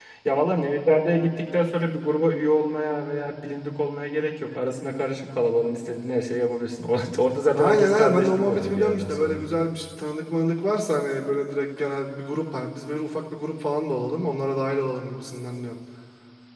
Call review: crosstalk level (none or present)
present